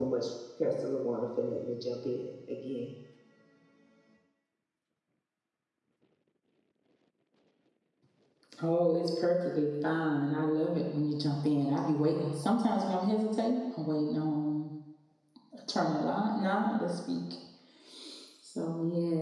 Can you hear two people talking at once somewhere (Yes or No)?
No